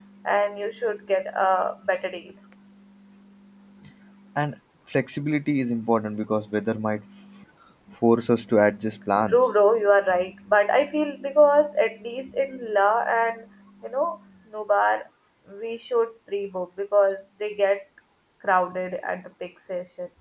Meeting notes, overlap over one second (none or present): none